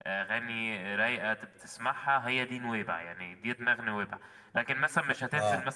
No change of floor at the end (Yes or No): No